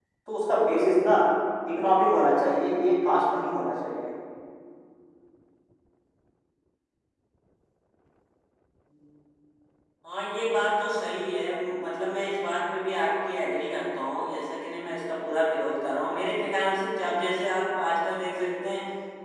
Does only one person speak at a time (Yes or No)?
Yes